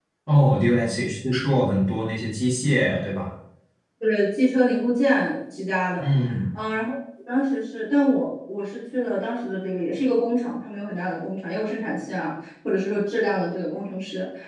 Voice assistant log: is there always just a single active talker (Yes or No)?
Yes